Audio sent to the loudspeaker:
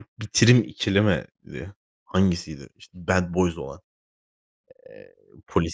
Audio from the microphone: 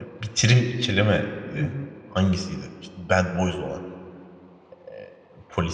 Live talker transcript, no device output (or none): Hı hı.